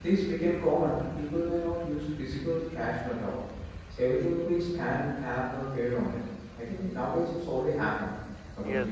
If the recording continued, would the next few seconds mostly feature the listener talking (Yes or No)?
Yes